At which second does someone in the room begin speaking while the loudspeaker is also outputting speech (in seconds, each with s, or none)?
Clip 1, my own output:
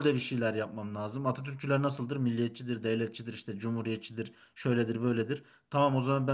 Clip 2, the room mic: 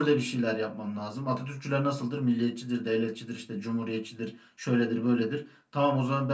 none